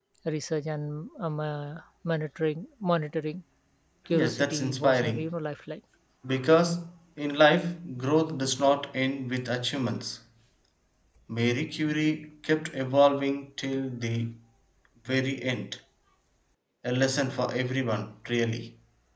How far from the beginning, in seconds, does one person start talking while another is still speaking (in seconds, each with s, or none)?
4.1 s